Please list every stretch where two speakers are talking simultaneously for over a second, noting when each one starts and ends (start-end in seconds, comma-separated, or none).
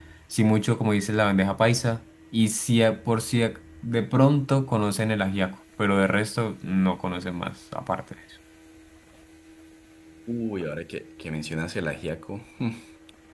none